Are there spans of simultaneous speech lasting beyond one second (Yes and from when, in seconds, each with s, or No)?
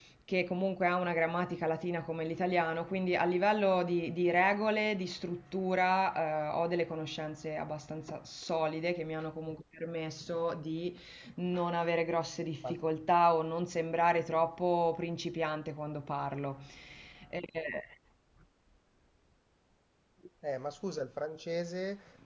No